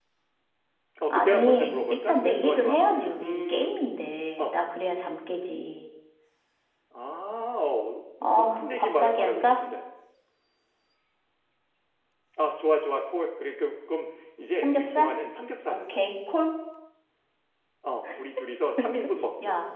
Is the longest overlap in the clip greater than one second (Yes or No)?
Yes